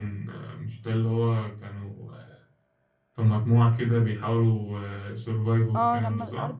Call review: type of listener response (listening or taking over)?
taking over